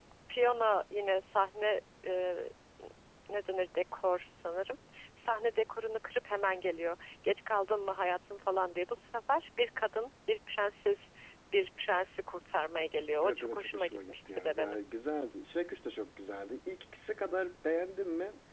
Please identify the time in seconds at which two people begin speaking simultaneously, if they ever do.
13 s

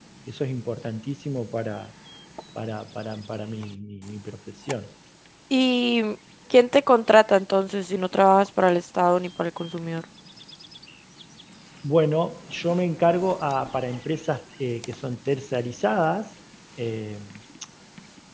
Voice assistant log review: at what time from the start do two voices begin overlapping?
none

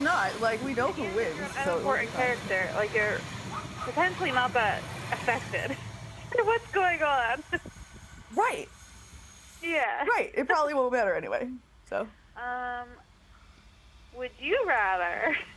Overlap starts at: 1 s

